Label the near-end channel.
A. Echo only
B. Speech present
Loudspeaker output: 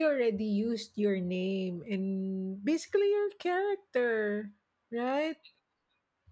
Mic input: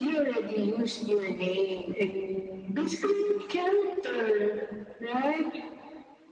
A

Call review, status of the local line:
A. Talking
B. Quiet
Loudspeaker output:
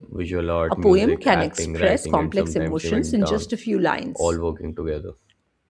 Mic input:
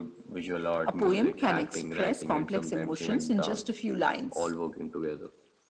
B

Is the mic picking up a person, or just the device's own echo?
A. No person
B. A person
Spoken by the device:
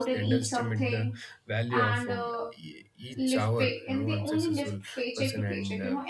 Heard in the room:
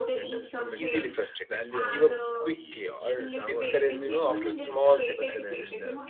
B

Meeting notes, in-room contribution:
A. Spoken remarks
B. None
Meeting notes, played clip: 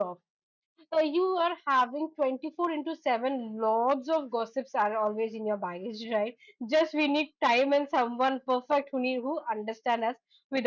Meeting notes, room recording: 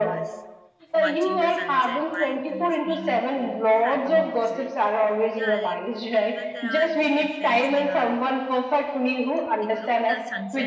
A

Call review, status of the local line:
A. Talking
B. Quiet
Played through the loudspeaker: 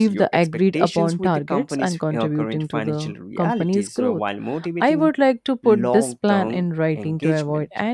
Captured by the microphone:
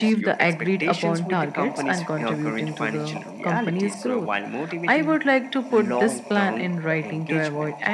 B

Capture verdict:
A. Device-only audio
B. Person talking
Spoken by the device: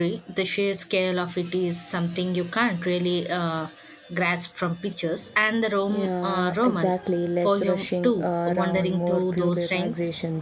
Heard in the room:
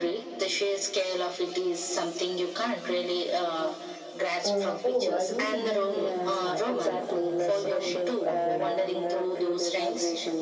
B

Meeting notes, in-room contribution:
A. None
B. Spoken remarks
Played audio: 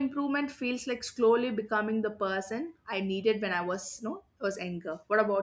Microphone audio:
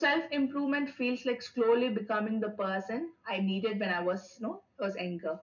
A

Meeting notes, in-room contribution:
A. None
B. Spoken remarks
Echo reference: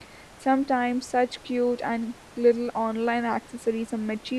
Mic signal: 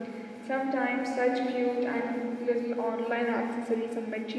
A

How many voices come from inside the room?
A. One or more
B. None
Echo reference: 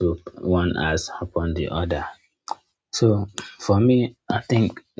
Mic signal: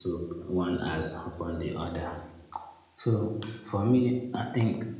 A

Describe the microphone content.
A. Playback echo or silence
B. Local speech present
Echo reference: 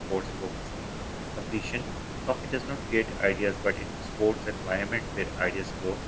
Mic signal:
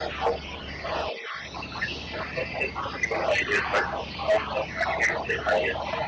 A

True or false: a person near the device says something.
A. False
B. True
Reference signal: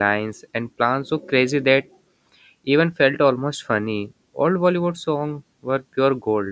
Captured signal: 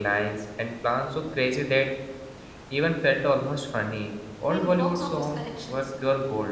B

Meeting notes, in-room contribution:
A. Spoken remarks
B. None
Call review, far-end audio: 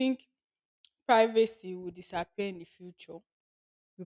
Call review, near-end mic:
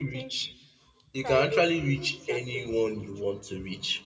A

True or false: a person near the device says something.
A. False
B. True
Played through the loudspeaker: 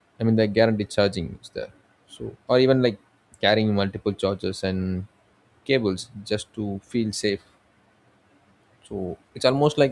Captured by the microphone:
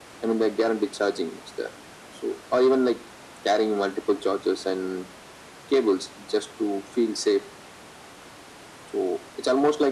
A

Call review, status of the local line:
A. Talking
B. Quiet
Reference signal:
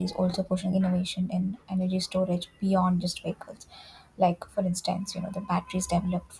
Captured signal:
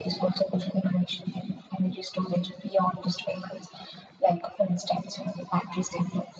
B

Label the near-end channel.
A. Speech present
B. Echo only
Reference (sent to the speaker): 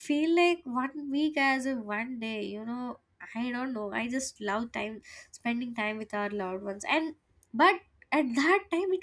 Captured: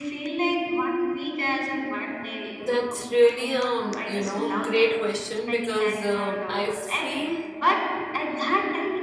A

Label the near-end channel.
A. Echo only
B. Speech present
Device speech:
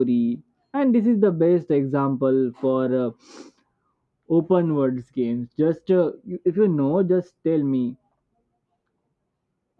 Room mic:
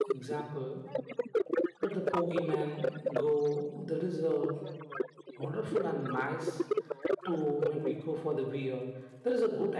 B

